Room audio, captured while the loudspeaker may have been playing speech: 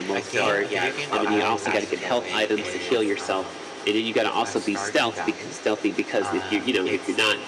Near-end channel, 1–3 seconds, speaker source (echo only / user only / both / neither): both